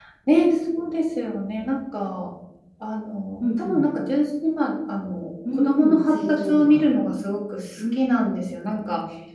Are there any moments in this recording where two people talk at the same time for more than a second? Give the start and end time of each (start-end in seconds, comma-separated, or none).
5.5-6.9